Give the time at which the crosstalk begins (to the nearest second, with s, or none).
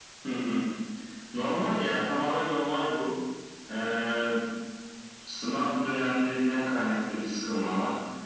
none